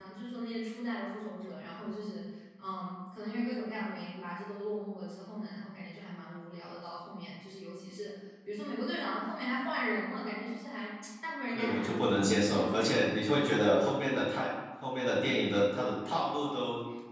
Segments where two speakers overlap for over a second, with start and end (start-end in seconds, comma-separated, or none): 11.5-13.1